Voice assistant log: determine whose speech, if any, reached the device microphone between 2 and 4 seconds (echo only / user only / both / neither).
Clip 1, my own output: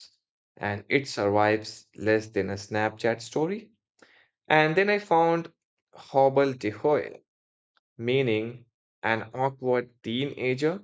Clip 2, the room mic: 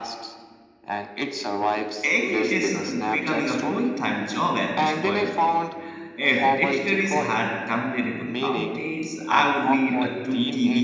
both